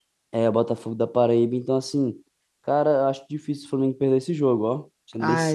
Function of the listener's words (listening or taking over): taking over